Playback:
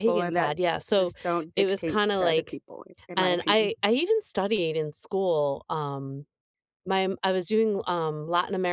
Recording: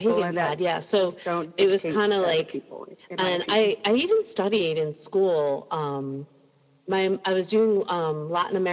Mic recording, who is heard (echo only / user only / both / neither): echo only